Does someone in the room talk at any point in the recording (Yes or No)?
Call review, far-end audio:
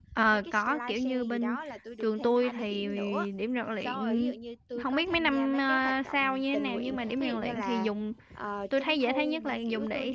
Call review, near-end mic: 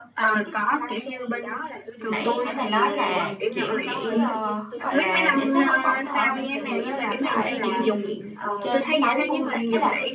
Yes